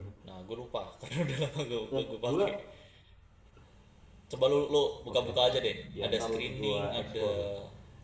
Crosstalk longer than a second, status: present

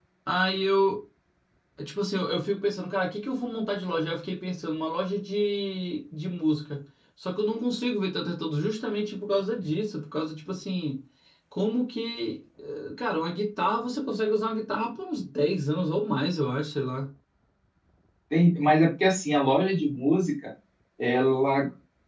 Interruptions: none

